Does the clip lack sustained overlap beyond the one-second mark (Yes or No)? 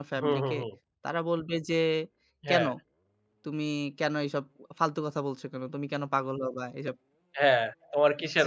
Yes